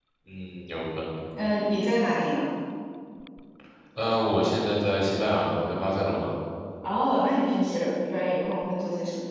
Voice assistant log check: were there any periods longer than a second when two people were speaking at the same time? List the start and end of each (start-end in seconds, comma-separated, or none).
none